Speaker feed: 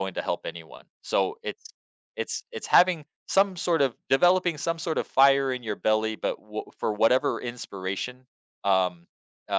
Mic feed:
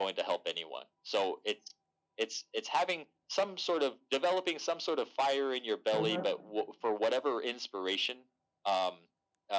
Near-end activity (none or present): present